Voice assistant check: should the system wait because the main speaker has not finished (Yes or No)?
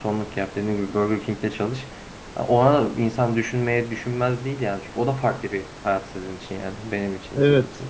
No